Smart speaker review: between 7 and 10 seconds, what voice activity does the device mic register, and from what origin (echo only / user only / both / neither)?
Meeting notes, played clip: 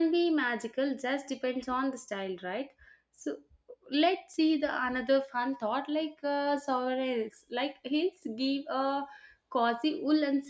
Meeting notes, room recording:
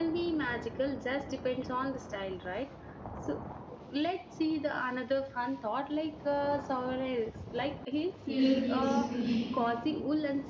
both